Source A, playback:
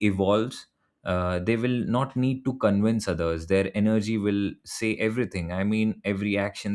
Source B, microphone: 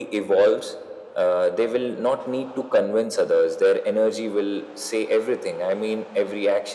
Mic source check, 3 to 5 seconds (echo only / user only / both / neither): echo only